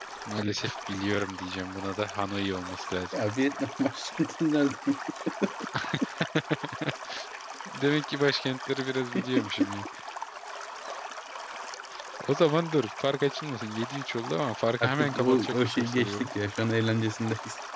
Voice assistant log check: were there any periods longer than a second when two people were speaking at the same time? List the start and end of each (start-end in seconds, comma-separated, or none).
14.8-16.3